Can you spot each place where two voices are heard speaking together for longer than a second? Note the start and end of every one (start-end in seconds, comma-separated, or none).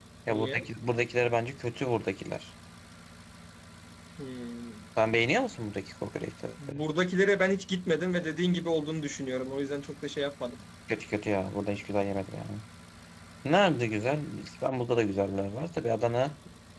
none